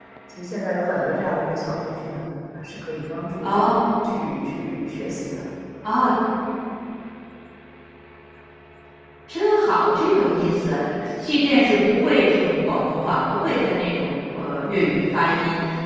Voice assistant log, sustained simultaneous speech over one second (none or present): none